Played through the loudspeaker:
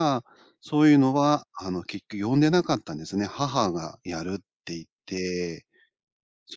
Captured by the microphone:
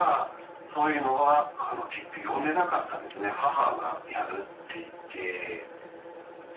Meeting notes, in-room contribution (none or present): none